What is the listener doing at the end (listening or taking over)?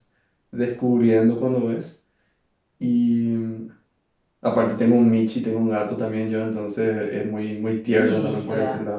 listening